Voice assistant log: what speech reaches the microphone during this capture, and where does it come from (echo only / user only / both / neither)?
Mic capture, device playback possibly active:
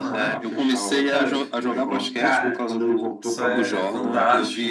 both